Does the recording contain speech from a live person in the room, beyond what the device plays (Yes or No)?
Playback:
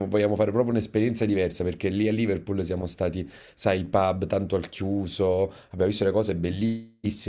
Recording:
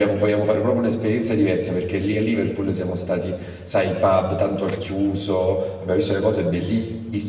No